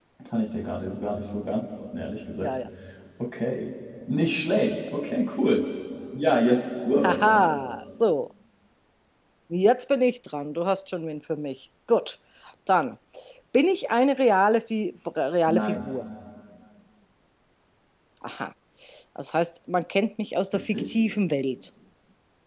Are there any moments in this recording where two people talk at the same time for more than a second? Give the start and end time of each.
none

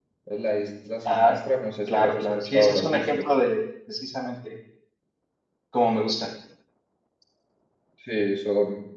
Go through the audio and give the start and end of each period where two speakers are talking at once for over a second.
1.9-3.2

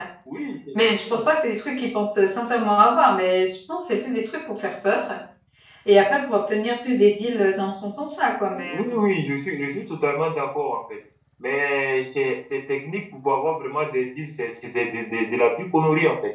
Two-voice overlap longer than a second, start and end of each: none

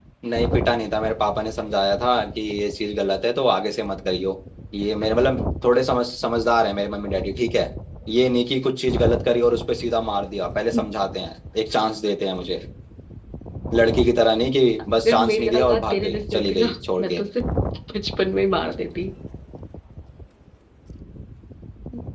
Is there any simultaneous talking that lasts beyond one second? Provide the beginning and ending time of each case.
15.0-17.2

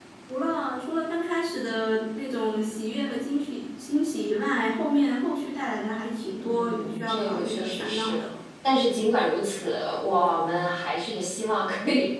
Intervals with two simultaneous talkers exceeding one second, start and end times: 6.4-8.2

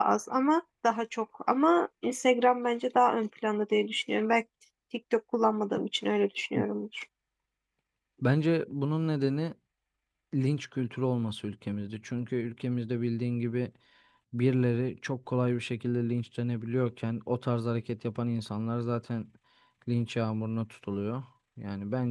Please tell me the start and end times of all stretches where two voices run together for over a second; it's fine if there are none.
none

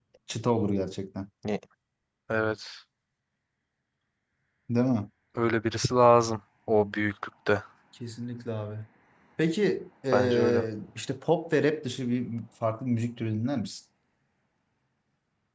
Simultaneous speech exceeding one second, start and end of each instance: none

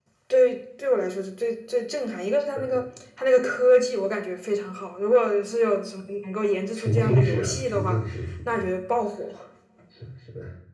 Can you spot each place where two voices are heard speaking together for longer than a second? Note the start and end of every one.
6.8-8.0

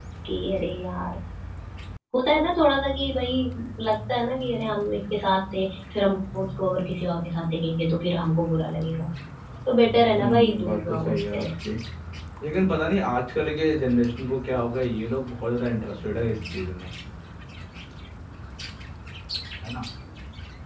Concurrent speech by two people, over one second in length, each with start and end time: 10.2-11.5

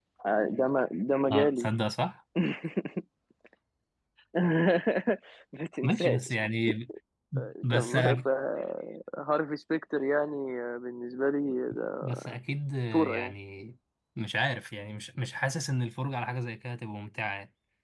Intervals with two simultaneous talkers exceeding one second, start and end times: none

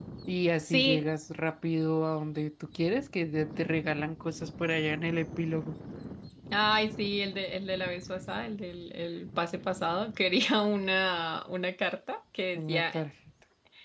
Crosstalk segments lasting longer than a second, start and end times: none

